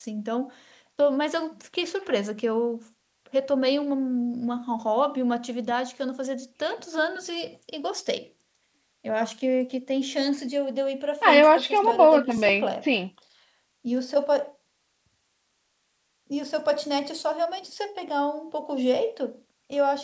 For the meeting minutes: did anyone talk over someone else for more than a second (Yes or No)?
Yes